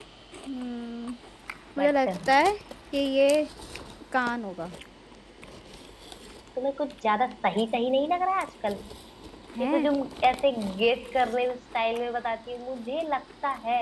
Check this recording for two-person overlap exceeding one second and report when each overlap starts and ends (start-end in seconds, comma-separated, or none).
none